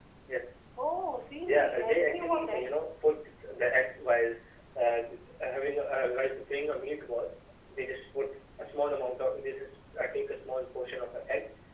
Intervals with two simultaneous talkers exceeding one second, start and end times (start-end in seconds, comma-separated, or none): 1.4-2.7